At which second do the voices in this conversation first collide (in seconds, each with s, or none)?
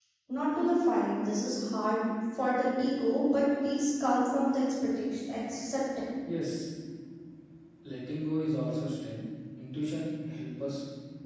none